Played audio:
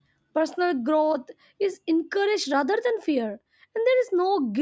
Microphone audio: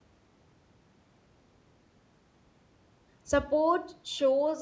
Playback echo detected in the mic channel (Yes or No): No